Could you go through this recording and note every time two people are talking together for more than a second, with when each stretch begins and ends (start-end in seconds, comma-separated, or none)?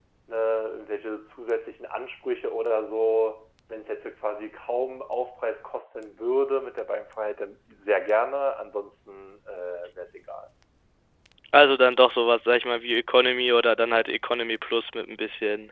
none